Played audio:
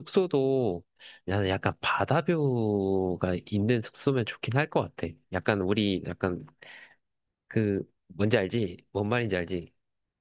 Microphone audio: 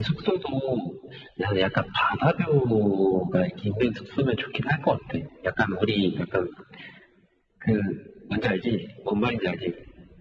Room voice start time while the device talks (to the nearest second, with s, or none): none